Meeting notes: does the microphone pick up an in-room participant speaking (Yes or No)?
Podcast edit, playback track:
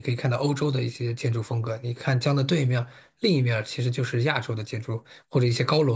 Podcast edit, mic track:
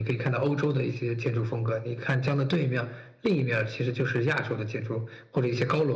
No